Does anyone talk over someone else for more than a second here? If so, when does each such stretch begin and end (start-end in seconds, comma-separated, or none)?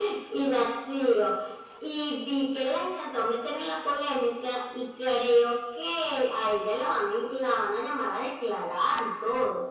none